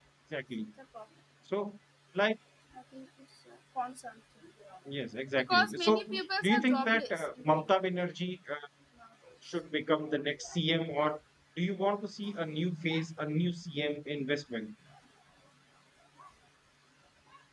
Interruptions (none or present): present